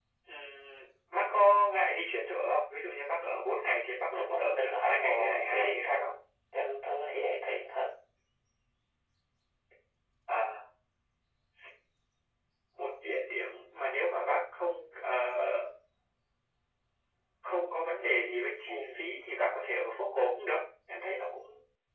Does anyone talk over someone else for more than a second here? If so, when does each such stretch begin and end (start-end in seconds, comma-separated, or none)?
4.1-5.9